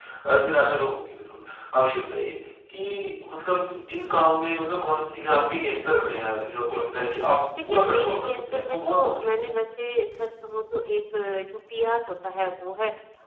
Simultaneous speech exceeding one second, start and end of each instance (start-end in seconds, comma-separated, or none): 7.6-9.4